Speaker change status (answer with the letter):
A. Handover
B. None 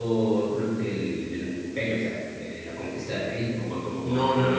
A